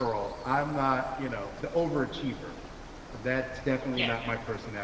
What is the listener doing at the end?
listening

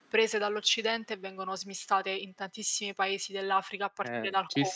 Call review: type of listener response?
taking over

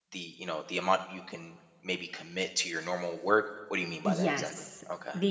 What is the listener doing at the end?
taking over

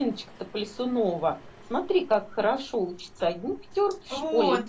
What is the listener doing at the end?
listening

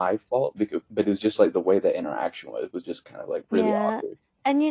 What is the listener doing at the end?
taking over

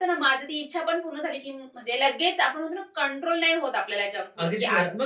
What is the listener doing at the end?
taking over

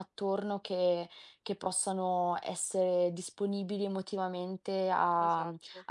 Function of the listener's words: listening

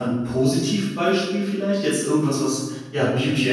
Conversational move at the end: listening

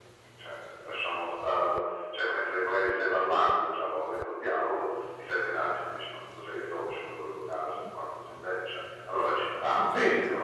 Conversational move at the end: taking over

